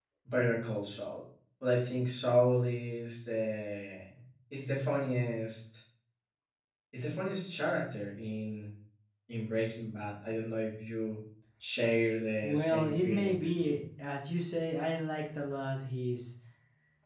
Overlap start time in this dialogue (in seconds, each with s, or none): 12.4 s